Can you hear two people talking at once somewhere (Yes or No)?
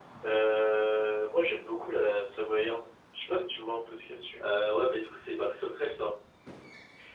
No